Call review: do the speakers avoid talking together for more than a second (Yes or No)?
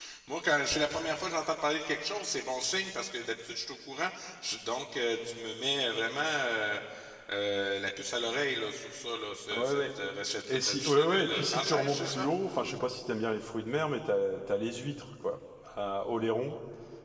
No